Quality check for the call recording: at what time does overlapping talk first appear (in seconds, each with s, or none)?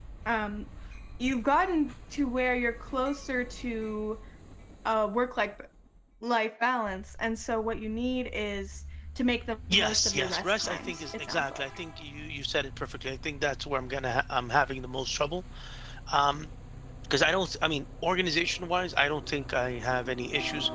9.7 s